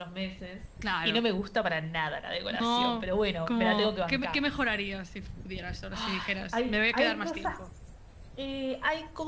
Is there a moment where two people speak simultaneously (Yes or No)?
Yes